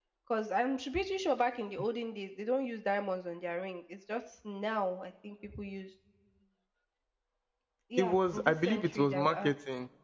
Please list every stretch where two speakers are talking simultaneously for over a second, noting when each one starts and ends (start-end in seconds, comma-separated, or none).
8.0-9.5